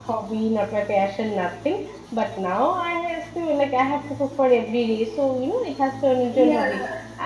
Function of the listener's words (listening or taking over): listening